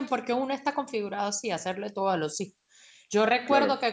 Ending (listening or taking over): listening